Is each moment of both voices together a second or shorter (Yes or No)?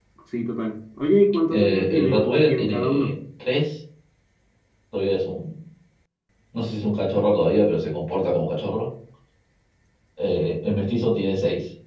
No